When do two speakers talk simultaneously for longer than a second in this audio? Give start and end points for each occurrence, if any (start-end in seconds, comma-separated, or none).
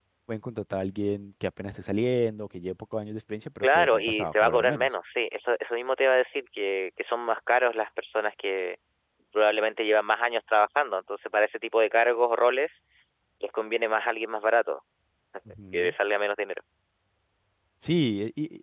3.6-4.9